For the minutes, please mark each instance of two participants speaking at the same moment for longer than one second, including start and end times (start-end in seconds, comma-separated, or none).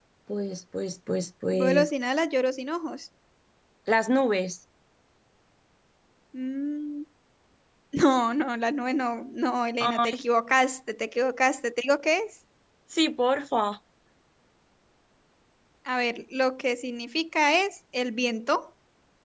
none